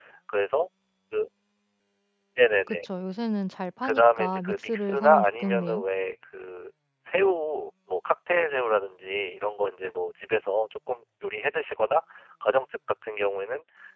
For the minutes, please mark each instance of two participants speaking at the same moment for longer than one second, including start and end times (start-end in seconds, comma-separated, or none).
3.8-5.8